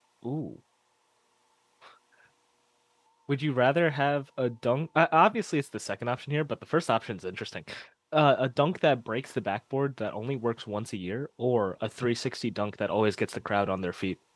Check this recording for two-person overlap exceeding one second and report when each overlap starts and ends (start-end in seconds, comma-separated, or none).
none